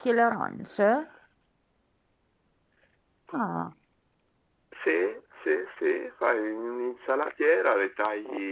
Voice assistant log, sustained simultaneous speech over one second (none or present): none